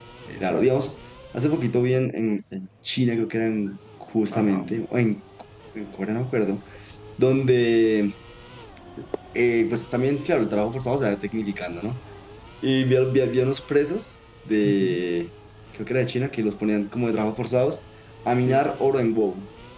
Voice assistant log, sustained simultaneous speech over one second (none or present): none